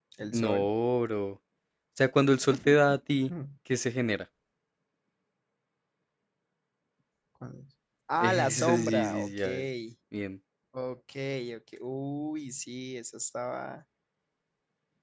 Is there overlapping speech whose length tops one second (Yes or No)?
Yes